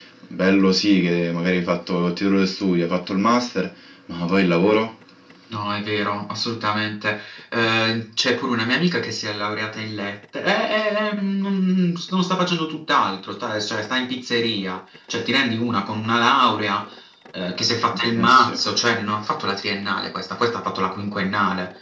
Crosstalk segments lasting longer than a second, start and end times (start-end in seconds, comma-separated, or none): none